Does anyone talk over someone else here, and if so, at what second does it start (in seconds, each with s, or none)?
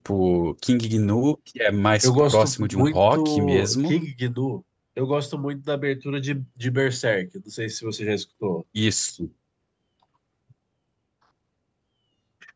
2.0 s